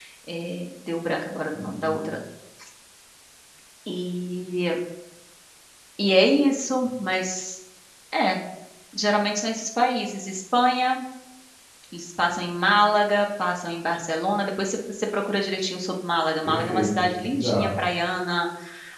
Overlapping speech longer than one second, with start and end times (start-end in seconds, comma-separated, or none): 16.4-17.7